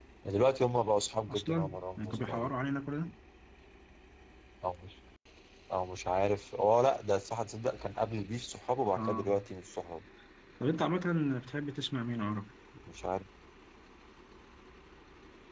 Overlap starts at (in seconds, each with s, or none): 1.3 s